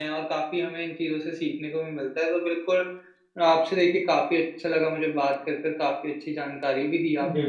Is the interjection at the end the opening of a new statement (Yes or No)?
No